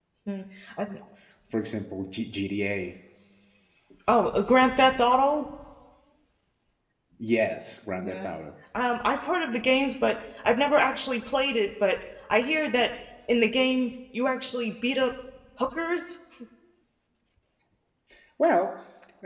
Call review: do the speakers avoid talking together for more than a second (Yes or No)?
Yes